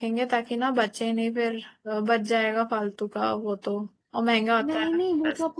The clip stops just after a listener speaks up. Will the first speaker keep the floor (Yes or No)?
No